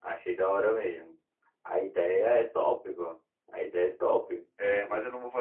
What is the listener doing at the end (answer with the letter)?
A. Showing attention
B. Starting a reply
B